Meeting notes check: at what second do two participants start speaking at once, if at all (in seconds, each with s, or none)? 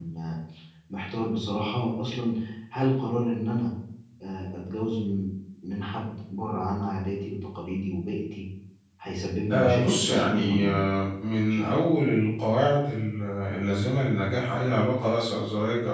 9.5 s